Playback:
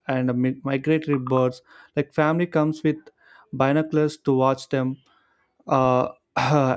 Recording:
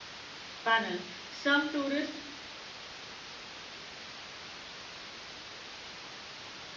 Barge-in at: 0.6 s

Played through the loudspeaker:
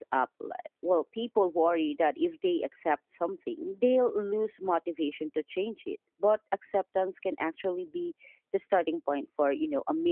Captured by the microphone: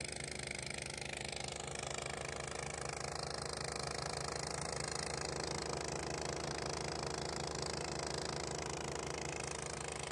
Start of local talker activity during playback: none

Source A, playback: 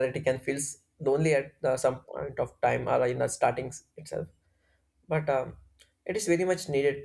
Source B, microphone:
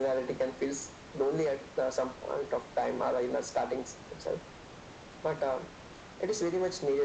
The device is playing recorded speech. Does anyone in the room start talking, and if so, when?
none

